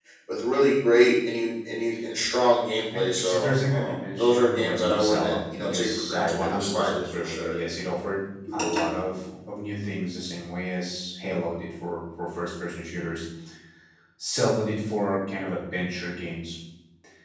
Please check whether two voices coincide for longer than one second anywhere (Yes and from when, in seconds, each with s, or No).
Yes, from 3.0 s